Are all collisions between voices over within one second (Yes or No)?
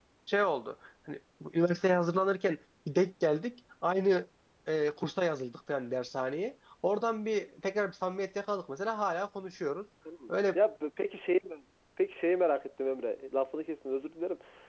Yes